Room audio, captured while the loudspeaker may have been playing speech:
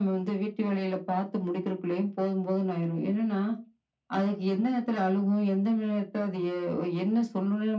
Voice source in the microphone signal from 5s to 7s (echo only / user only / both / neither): echo only